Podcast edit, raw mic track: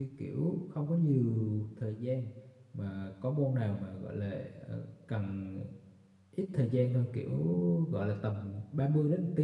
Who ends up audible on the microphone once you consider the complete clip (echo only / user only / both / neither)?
user only